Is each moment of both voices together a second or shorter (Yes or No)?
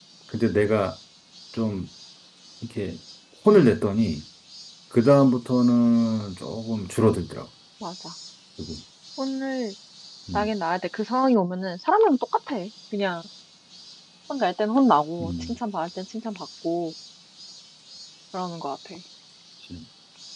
Yes